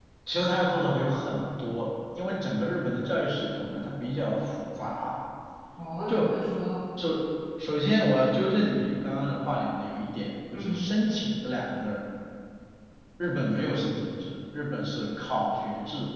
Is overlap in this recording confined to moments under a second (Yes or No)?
Yes